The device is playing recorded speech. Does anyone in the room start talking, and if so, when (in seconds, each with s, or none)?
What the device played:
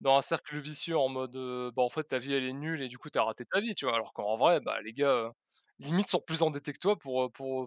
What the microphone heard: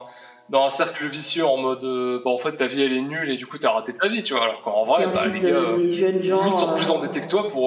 4.9 s